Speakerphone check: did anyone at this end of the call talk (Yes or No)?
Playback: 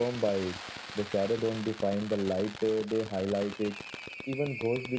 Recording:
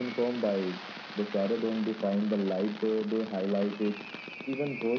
No